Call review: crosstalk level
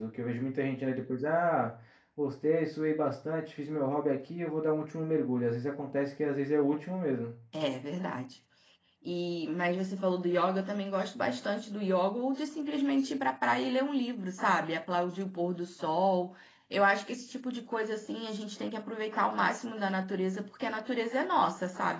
none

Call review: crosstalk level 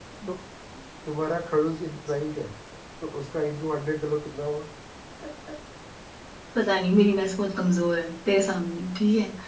none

